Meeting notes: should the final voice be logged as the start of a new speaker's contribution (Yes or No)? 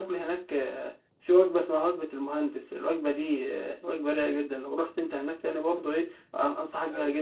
No